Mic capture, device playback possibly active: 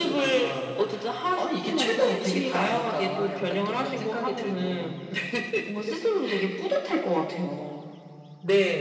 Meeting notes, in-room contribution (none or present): none